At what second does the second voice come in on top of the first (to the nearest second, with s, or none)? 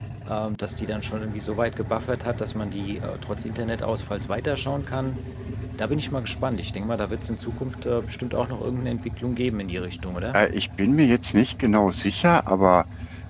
none